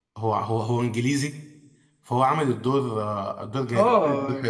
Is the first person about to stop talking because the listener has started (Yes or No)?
Yes